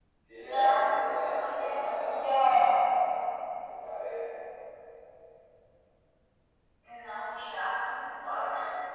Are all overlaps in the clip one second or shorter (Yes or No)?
No